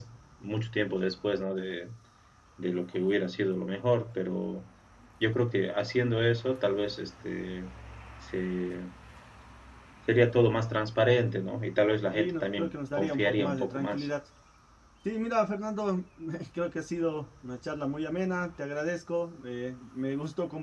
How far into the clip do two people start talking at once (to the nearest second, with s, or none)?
12 s